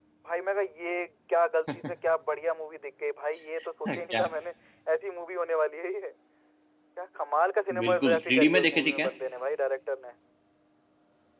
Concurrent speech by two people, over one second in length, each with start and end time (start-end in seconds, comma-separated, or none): 7.8-9.1